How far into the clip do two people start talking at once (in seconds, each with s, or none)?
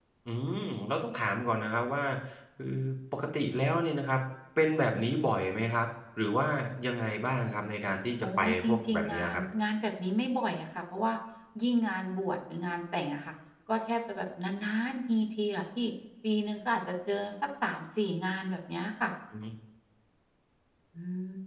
8.2 s